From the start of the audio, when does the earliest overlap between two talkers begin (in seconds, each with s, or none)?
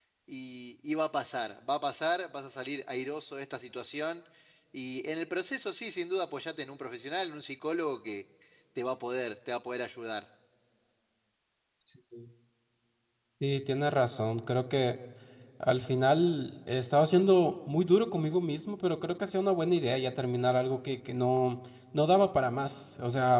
none